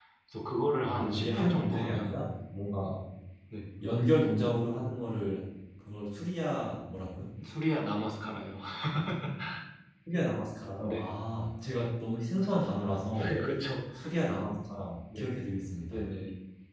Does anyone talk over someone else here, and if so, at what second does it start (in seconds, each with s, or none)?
0.8 s